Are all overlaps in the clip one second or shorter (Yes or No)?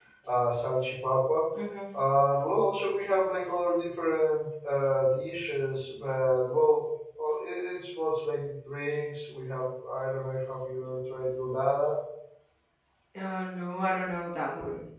Yes